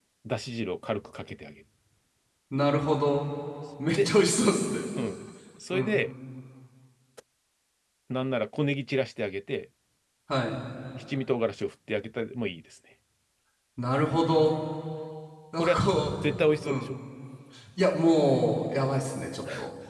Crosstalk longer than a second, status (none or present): none